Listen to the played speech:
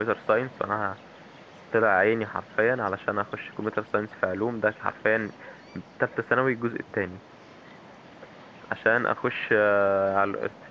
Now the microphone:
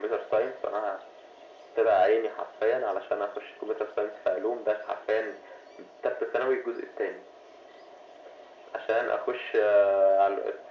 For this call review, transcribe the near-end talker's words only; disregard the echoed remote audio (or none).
none